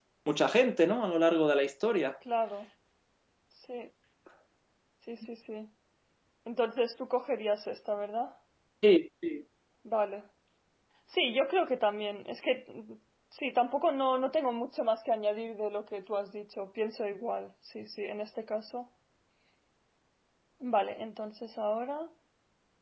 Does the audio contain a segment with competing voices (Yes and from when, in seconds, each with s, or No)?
No